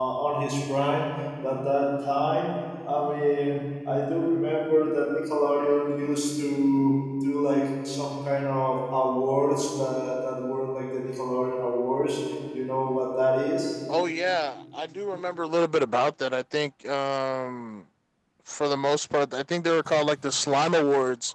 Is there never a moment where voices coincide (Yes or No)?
Yes